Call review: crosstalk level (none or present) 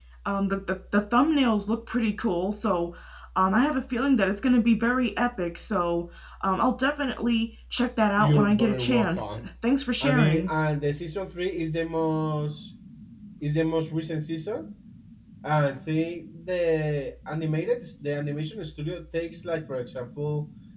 present